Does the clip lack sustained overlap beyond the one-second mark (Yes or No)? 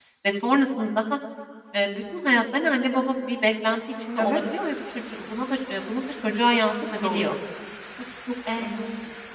Yes